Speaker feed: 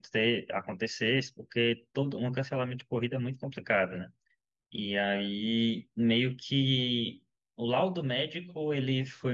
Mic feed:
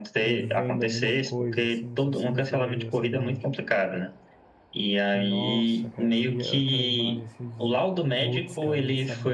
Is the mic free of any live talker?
No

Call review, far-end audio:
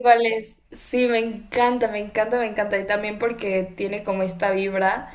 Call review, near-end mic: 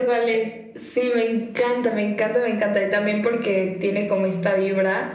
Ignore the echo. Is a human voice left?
No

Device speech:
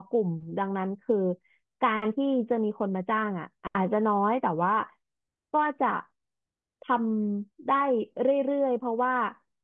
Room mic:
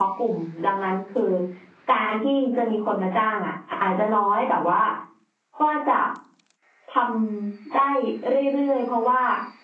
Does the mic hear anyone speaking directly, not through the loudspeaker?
No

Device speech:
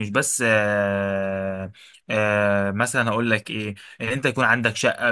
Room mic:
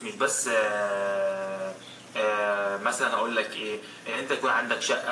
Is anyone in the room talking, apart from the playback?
No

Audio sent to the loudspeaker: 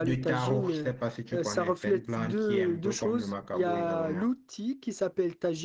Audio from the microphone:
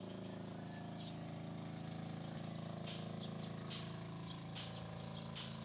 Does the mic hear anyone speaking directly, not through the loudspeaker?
No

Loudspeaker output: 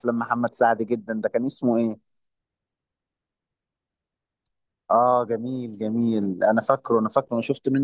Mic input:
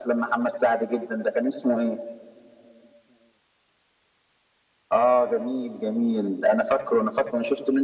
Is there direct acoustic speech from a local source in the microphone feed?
No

